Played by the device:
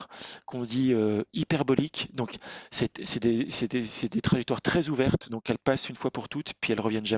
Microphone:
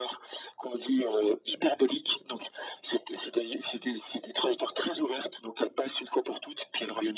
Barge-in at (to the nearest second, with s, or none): none